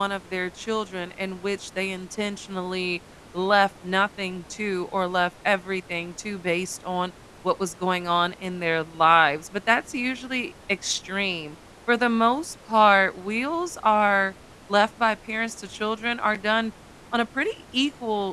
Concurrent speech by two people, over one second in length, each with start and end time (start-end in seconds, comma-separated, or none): none